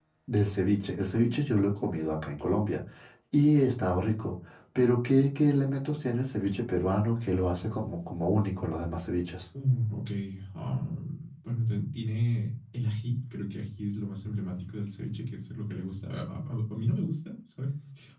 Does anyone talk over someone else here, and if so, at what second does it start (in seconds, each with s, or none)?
none